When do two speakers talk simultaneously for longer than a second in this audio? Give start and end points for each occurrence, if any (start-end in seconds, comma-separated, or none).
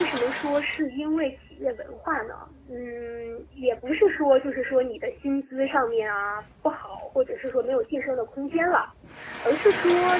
none